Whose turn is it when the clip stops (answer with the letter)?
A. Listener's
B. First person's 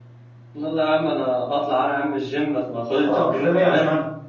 A